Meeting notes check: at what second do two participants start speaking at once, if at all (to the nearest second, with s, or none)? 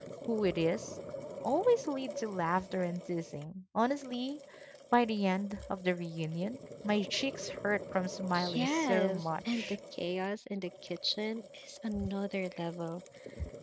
8 s